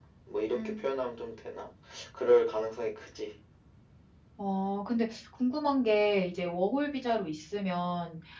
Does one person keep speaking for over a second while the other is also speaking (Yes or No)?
No